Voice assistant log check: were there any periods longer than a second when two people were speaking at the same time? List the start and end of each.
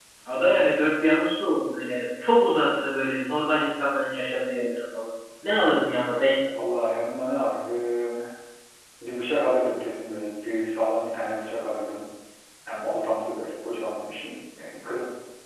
none

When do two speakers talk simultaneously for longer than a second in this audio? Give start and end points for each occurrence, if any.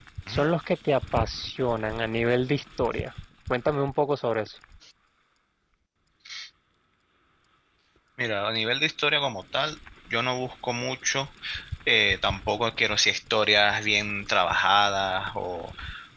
none

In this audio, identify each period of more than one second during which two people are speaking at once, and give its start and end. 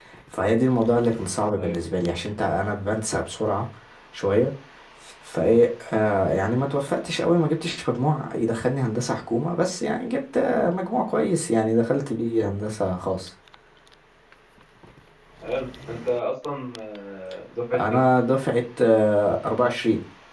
none

